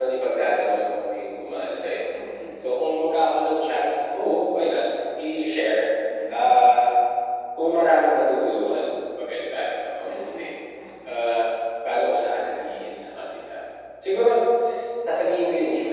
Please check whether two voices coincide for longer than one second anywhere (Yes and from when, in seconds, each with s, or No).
No